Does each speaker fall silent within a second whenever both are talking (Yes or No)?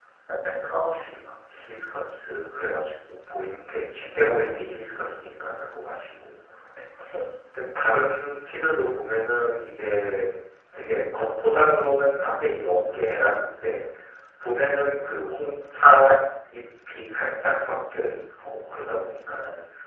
Yes